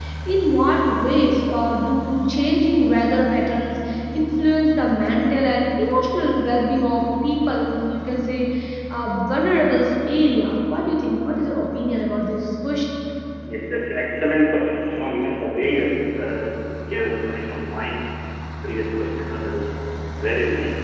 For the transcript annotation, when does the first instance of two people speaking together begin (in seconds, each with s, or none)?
none